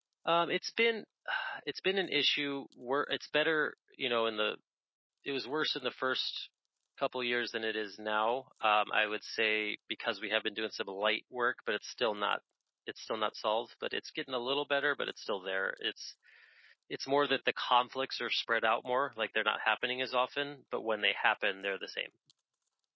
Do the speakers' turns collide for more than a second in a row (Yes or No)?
No